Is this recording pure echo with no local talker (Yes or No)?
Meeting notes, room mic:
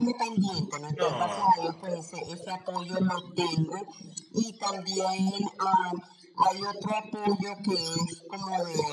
No